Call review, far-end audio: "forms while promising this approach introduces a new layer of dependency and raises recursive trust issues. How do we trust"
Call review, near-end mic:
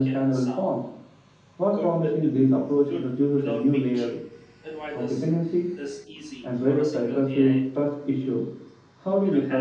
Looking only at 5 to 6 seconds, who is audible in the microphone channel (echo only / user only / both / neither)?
both